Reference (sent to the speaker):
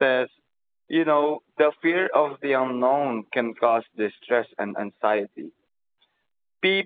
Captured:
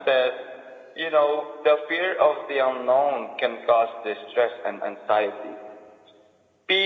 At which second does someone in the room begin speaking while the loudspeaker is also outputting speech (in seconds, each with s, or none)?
none